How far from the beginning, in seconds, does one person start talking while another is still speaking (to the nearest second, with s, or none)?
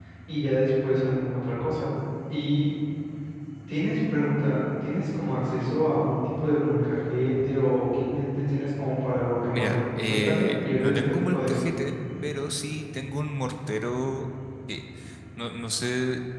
9 s